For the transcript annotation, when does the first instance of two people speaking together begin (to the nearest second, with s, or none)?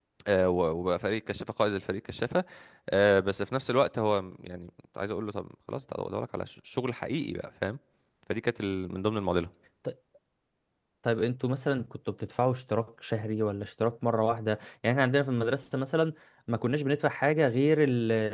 none